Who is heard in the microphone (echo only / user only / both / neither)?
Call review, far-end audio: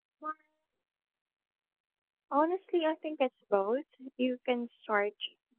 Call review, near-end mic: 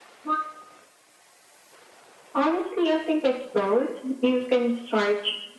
echo only